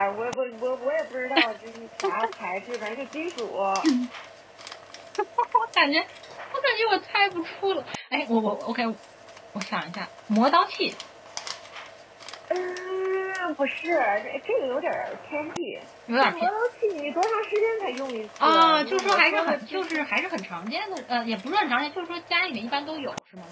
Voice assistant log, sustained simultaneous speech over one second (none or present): present